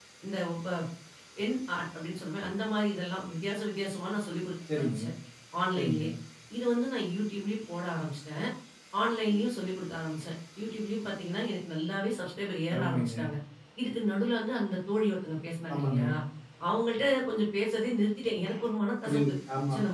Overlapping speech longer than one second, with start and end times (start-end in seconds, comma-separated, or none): none